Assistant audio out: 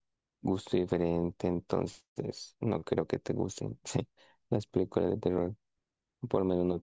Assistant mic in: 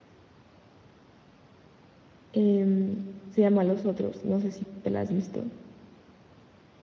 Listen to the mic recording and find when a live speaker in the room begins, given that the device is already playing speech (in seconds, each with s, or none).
2.3 s